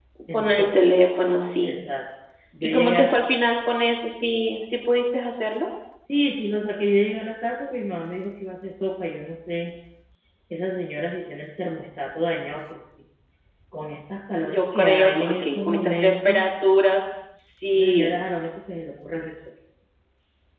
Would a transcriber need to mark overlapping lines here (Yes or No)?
Yes